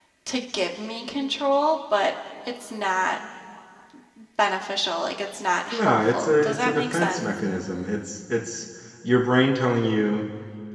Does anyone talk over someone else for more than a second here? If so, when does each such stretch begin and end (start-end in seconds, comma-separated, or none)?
5.7-7.3